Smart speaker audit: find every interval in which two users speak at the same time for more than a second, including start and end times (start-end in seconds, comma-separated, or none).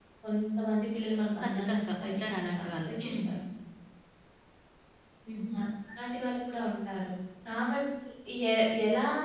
1.4-3.2